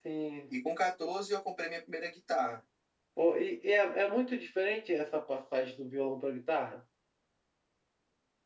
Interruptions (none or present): none